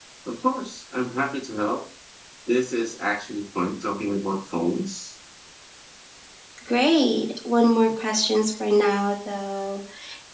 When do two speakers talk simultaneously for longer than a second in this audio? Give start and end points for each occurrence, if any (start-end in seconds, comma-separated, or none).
none